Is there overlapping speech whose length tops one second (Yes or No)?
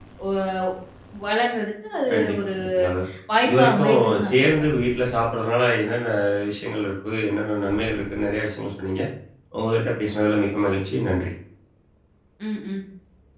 Yes